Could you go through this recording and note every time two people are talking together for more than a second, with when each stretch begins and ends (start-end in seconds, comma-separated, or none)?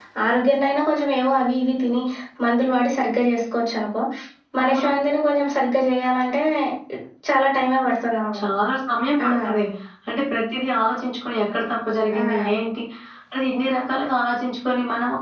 none